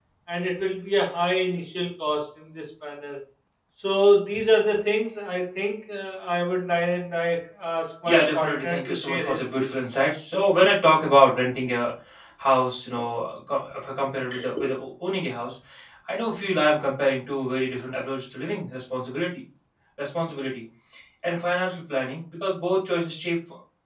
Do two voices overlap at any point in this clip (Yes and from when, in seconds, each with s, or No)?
Yes, from 8.0 s